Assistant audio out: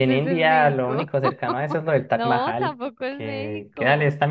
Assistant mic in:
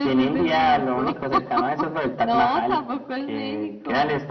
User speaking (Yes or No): No